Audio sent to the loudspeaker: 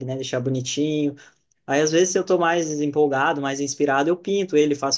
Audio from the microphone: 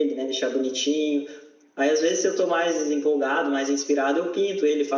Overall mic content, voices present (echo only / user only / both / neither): echo only